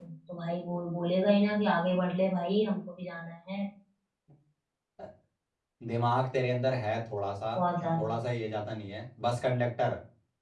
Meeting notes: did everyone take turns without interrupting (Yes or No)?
Yes